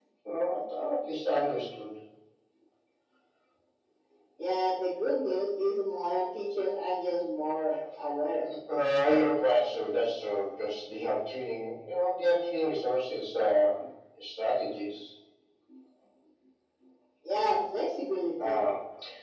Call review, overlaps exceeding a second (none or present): none